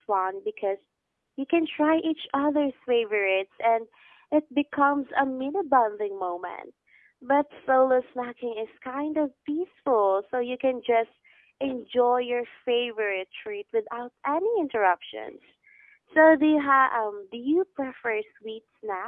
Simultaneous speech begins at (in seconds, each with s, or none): none